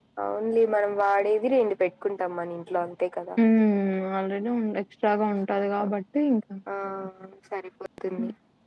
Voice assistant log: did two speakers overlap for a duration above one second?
No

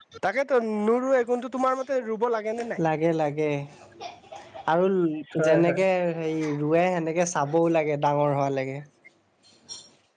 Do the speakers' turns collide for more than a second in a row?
No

